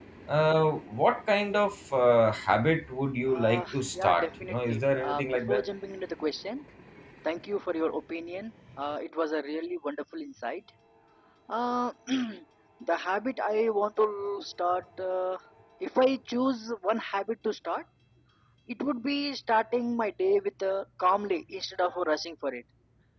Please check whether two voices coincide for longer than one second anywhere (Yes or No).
Yes